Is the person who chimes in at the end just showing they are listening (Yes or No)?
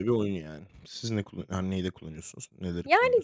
No